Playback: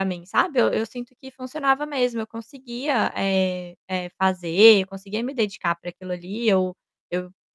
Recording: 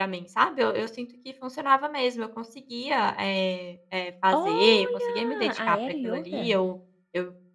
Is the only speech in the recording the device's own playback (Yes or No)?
No